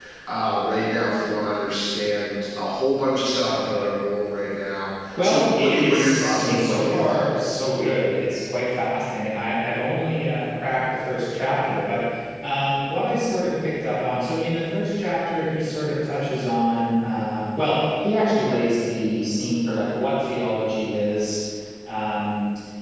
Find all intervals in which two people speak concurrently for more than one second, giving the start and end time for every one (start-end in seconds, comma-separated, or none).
5.2-7.3